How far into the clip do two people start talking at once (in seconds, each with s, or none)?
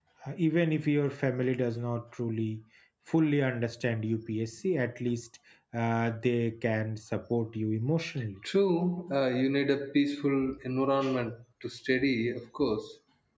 none